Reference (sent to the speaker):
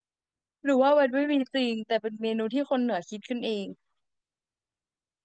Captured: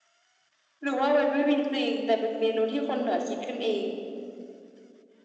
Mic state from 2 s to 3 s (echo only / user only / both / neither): echo only